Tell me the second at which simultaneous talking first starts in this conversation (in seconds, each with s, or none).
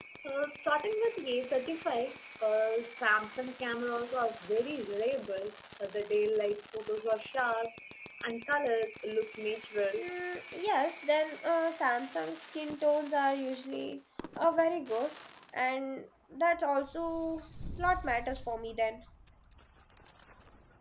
none